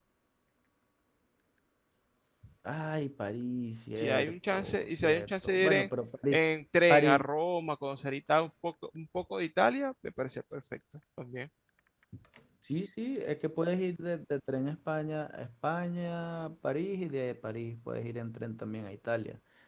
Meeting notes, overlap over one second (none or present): present